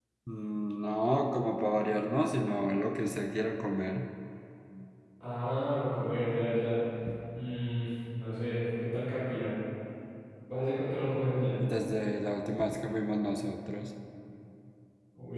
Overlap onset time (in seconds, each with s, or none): none